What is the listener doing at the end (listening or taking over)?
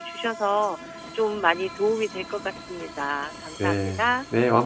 taking over